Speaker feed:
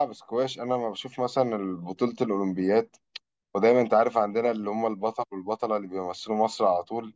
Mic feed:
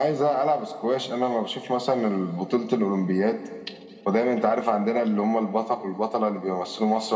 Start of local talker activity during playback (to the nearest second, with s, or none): none